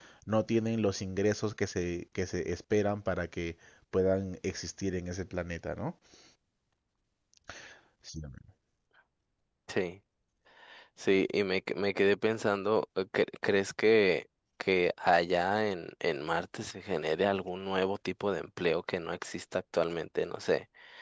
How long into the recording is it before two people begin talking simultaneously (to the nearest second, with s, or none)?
none